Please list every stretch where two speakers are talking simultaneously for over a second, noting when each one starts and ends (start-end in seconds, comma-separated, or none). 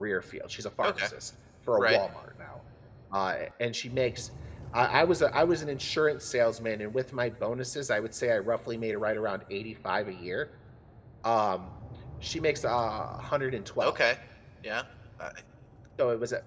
none